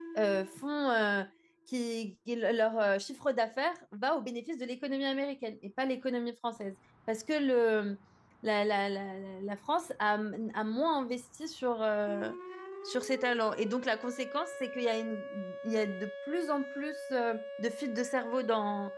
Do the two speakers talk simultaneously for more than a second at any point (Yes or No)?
No